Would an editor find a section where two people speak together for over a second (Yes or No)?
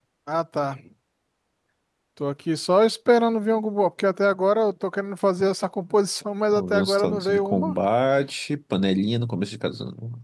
Yes